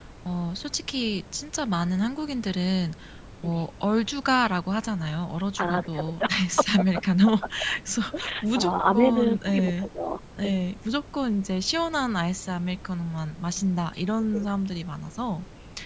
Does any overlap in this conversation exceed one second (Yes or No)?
Yes